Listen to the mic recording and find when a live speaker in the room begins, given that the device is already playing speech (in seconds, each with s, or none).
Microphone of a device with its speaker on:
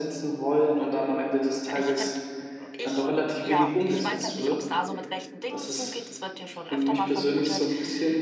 1.8 s